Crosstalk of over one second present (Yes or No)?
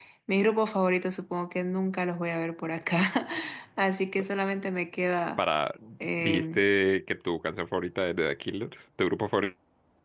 No